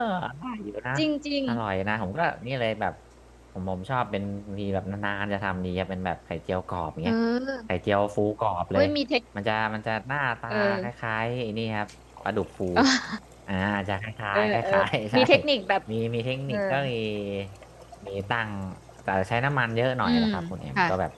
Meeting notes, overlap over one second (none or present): none